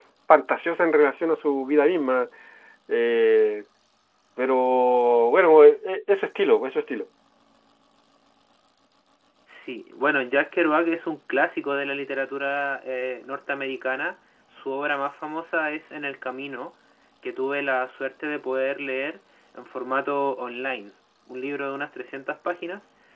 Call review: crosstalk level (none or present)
none